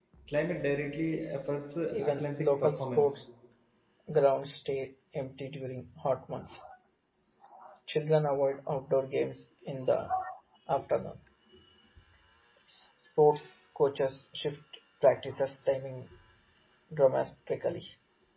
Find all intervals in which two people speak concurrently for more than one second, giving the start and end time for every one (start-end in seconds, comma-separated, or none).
1.9-3.2